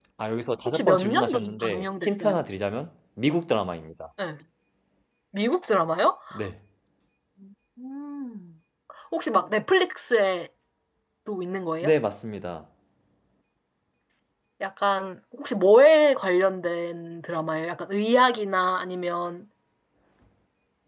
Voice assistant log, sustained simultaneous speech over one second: present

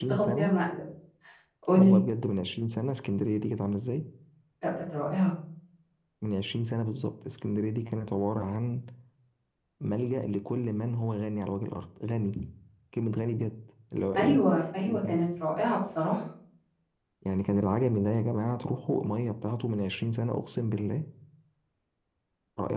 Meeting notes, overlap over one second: none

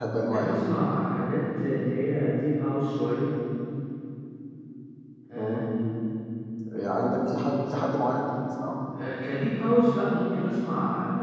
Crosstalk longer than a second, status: none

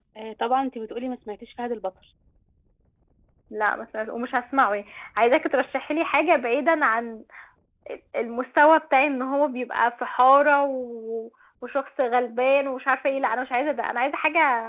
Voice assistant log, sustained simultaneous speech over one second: none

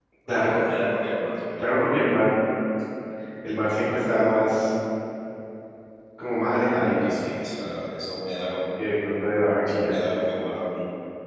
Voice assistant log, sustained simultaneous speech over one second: none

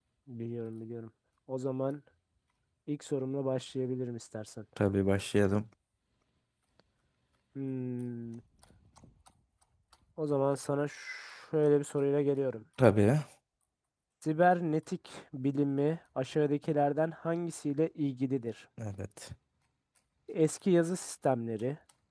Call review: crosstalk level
none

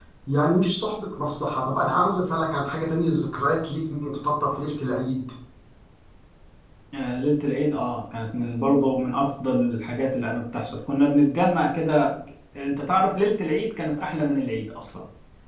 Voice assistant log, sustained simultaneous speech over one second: none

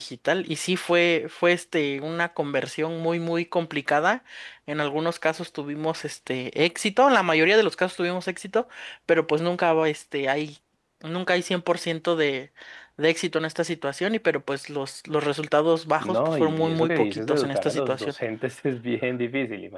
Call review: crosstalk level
present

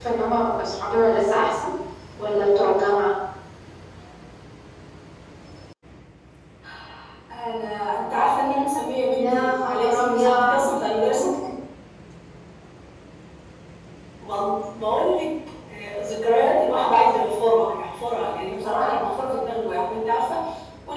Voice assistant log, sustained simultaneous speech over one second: present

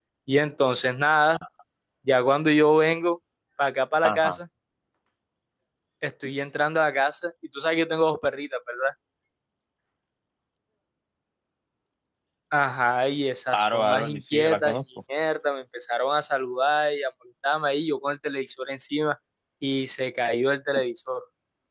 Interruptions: present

